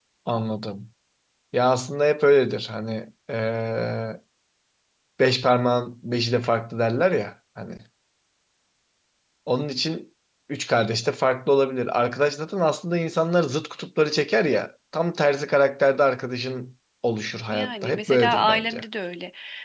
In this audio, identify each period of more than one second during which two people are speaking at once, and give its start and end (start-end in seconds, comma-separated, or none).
17.5-18.8